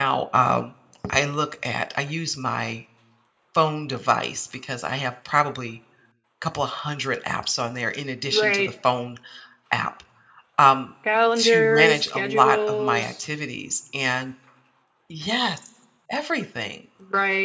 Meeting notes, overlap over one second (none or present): present